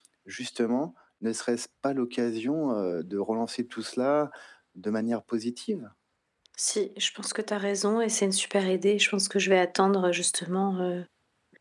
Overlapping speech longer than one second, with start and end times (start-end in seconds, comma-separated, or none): none